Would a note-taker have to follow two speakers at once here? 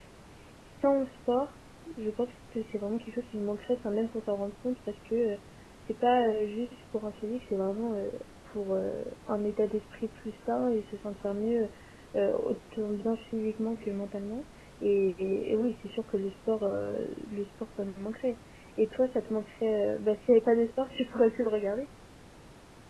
No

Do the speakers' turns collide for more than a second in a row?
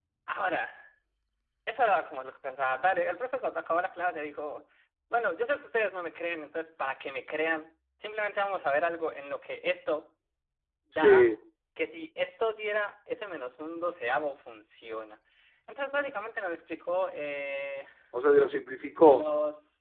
No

